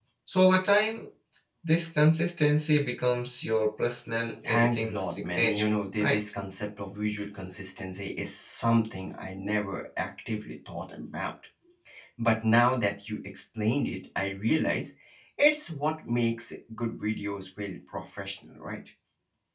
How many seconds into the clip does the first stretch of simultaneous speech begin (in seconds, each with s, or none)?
4.4 s